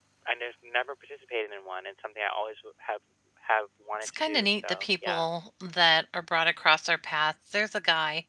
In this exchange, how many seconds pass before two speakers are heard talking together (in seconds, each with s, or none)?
4.0 s